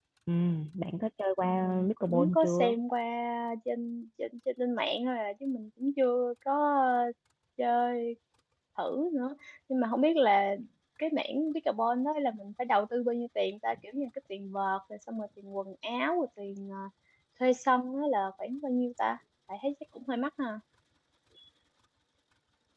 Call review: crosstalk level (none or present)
present